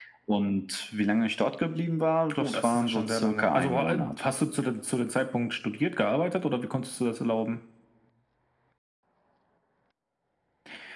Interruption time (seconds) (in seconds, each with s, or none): 2.4 s